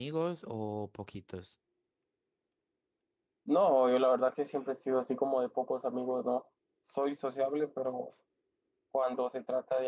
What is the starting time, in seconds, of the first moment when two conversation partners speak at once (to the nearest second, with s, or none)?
none